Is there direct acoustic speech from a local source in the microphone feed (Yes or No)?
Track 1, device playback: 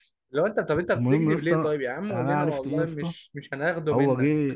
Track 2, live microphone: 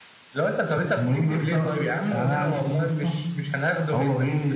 No